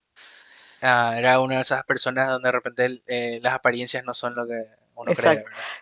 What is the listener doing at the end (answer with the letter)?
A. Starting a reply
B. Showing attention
A